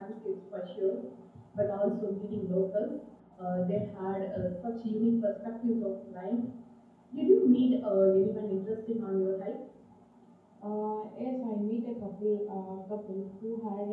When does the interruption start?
none

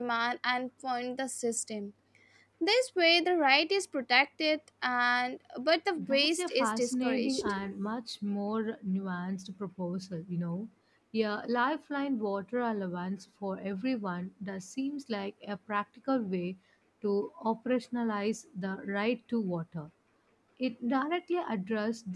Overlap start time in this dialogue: 6 s

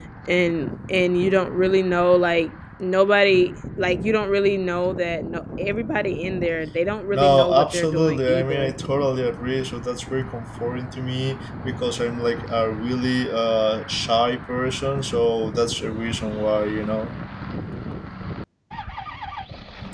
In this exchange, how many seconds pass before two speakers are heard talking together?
7 s

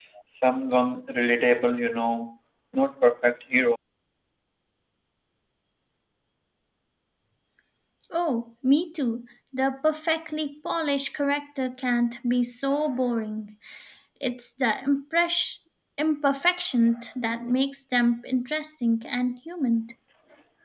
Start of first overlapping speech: none

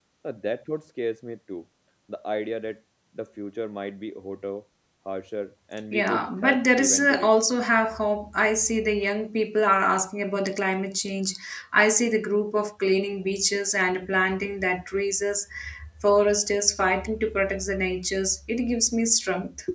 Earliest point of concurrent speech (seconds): 6 s

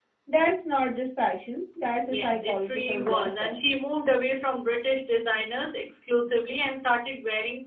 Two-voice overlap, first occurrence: 2 s

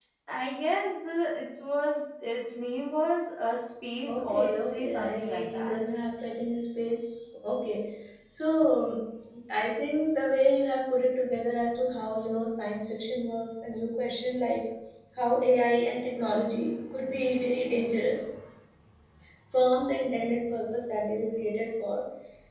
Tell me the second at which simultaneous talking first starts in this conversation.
4 s

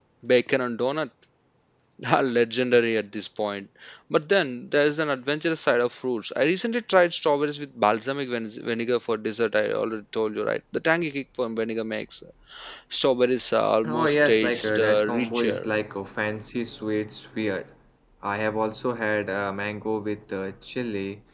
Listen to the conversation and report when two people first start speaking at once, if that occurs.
14 s

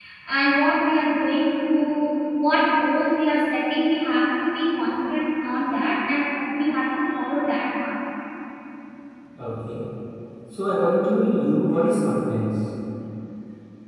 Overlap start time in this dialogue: none

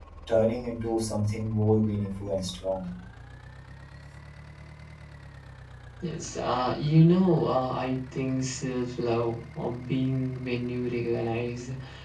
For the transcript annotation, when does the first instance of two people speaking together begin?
none

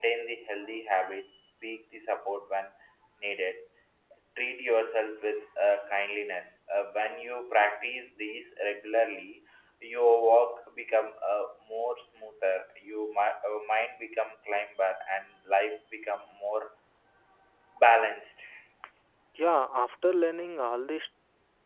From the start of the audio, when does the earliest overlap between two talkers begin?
none

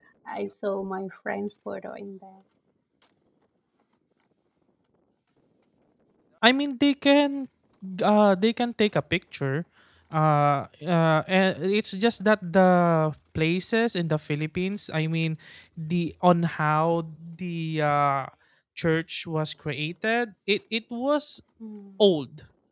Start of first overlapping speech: none

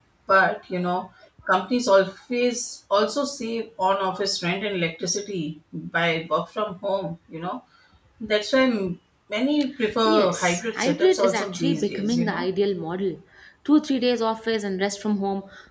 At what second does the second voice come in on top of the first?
10 s

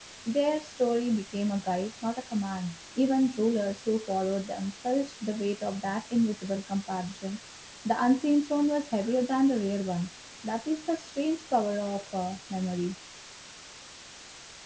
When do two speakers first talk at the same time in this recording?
none

